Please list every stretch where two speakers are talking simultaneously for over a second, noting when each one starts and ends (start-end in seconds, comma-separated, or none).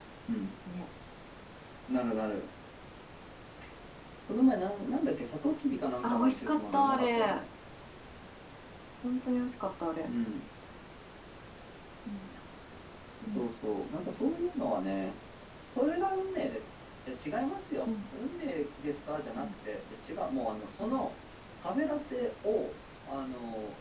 6.0-7.4